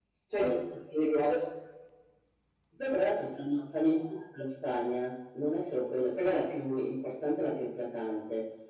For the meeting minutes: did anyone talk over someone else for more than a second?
No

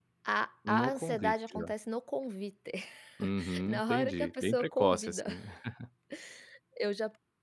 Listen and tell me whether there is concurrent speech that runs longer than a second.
Yes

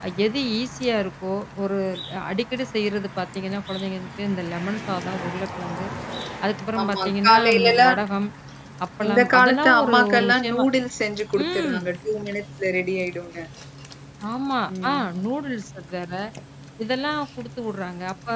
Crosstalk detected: Yes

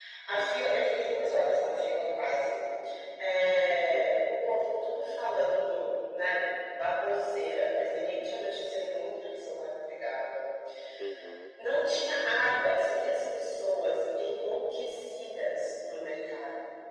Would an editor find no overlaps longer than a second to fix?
Yes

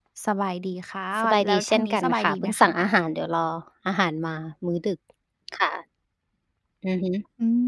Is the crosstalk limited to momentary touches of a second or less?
No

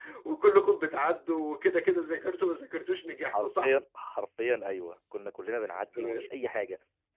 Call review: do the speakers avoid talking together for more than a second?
Yes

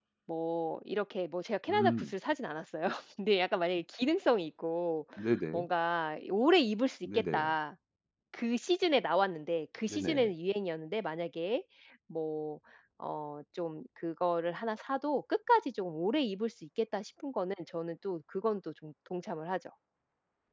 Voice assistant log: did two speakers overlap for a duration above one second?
No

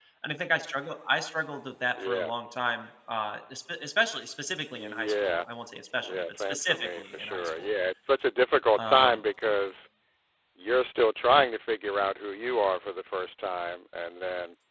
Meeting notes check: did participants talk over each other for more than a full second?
Yes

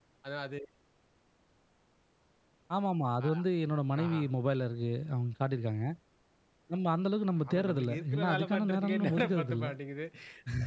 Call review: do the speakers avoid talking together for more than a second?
No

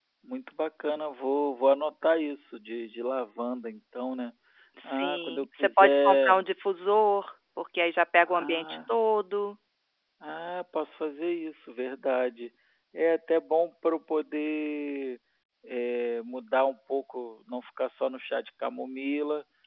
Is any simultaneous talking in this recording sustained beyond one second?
Yes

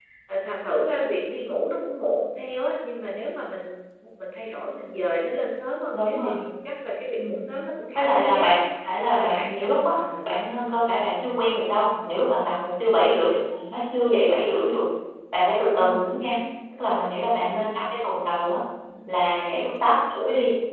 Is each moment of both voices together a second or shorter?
No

